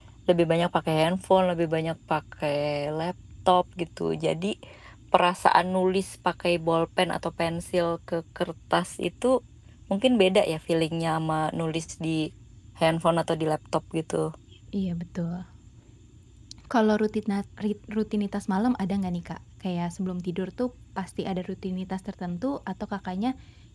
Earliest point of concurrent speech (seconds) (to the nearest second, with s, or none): none